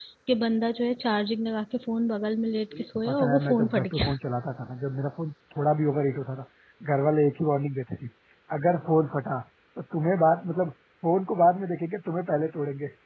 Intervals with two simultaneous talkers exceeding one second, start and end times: 2.7-4.1

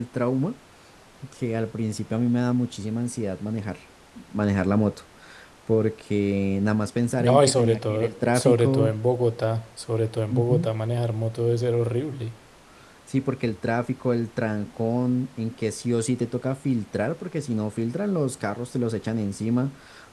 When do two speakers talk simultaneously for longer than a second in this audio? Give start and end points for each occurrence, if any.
7.2-8.9

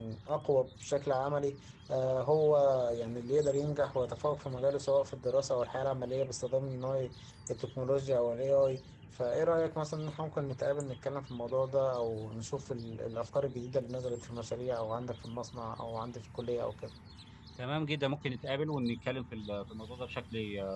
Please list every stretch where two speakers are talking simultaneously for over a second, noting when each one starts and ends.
none

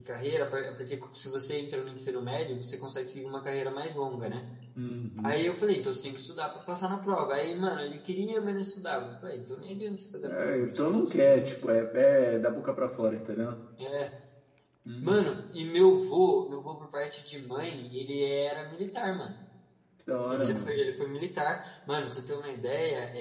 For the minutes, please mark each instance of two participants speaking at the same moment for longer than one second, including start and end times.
10.2-11.5

